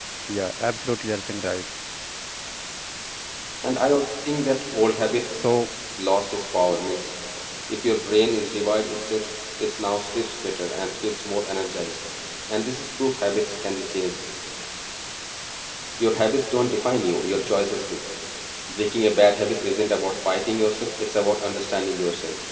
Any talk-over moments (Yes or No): No